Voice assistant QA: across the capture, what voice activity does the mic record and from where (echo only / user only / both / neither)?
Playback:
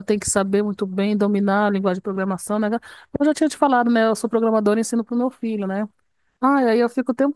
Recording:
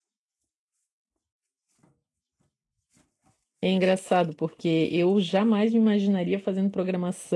user only